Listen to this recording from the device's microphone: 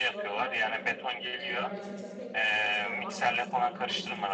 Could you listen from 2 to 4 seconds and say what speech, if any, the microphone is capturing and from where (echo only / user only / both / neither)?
both